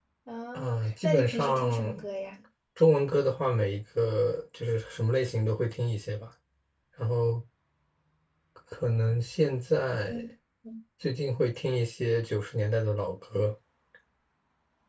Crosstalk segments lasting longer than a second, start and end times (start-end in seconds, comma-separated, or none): 0.5-2.0